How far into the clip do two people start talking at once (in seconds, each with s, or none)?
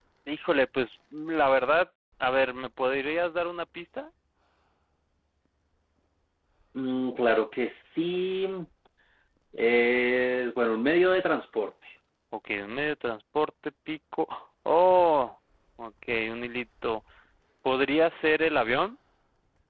none